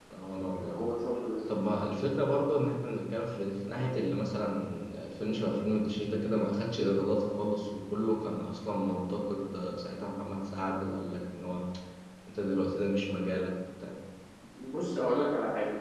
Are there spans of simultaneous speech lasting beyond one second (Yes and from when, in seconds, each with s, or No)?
No